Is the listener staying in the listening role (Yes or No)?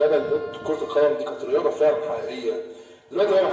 Yes